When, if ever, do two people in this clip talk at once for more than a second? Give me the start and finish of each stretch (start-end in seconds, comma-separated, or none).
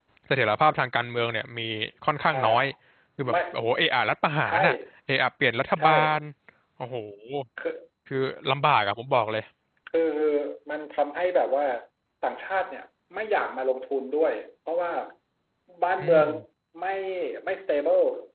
none